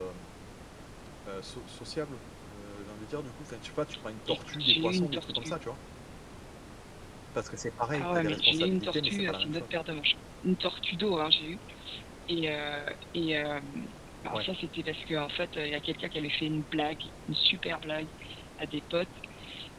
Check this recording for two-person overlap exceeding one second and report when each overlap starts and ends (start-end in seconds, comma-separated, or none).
4.3-5.6, 7.9-9.8